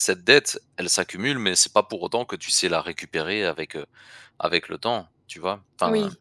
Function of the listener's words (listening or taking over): taking over